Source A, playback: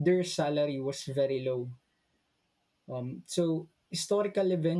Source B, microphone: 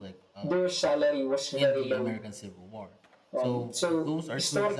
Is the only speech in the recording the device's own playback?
No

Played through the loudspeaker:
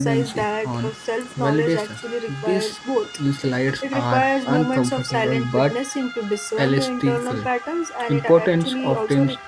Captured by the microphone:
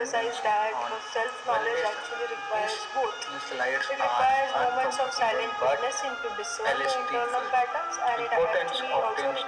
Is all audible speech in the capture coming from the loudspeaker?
Yes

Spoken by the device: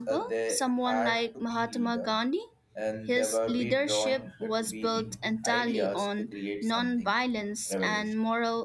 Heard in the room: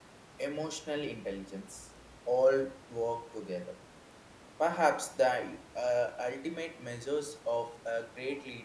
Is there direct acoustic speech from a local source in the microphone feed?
Yes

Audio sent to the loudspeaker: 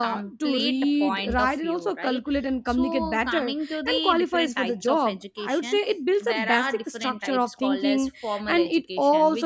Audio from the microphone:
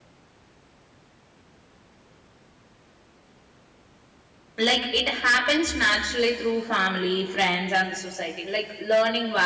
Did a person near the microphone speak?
Yes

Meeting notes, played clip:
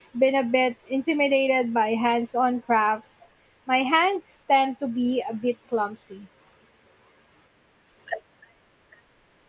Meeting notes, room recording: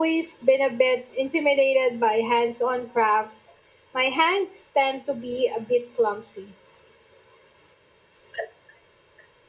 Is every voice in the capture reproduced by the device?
Yes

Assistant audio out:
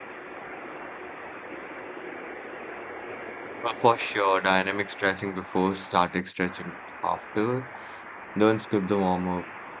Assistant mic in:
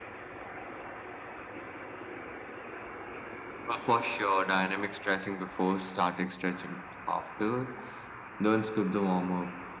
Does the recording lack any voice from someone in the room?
Yes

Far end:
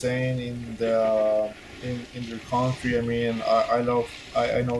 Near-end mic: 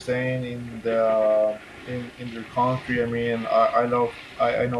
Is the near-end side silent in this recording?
Yes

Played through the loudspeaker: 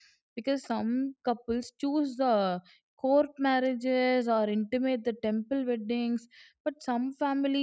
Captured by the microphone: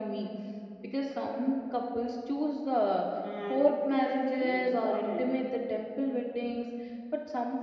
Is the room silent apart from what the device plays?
No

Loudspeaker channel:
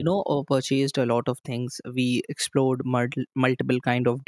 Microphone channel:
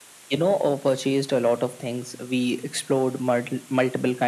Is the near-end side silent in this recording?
Yes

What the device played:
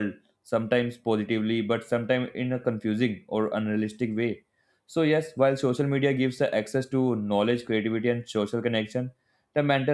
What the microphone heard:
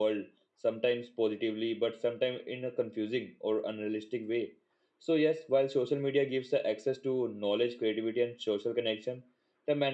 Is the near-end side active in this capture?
No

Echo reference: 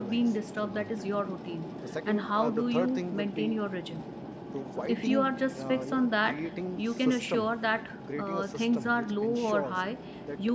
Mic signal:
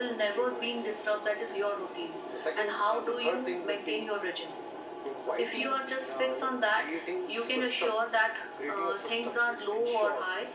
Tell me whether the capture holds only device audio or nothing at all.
Yes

